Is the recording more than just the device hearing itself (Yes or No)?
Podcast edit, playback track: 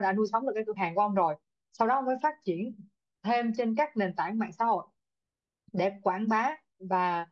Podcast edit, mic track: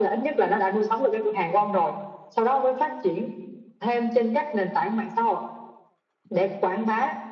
No